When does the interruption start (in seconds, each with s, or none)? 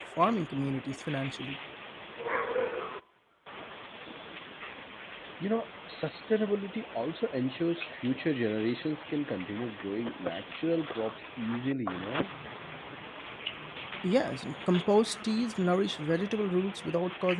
none